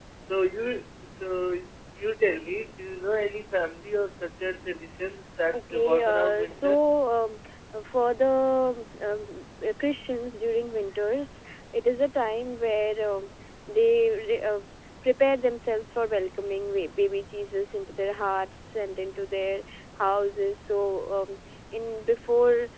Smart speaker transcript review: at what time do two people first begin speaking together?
5.5 s

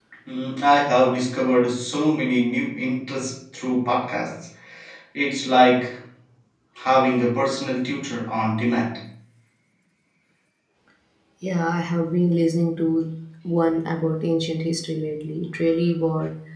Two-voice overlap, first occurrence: none

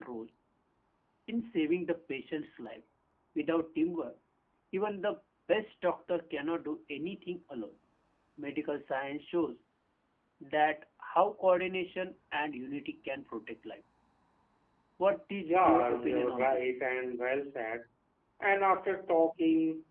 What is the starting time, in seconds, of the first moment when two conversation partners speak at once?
15.4 s

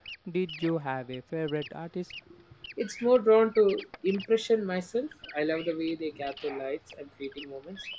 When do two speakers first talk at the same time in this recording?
none

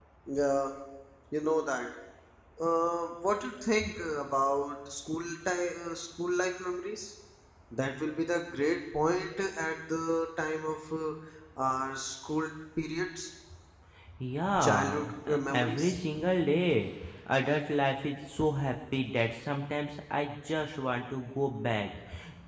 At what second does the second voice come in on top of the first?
14.6 s

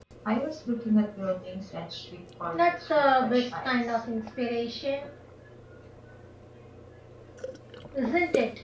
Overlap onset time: 2.5 s

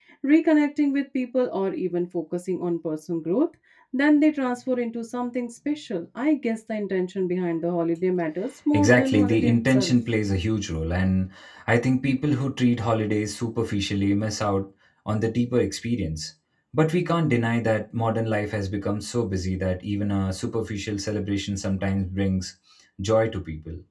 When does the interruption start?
8.7 s

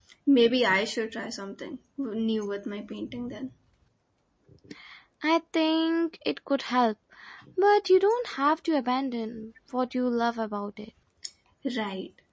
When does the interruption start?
none

